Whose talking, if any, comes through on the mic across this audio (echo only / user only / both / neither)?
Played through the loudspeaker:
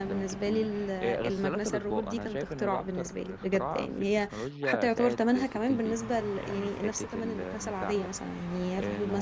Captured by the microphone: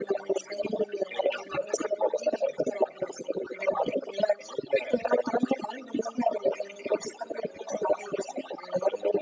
echo only